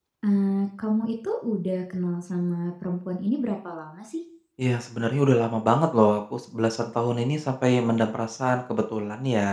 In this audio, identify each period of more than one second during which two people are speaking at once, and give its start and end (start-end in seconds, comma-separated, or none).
none